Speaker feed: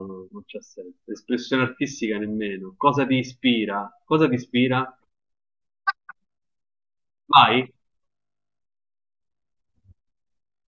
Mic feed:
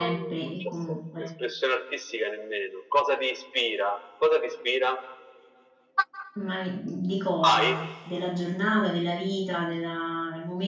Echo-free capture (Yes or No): No